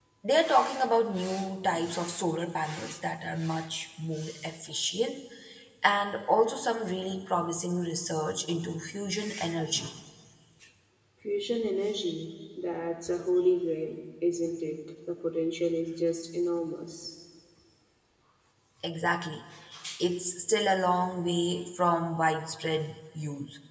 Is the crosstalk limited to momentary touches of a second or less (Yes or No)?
Yes